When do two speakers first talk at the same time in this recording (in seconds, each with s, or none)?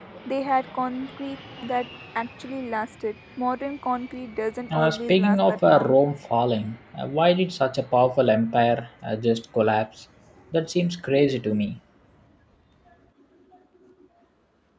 4.7 s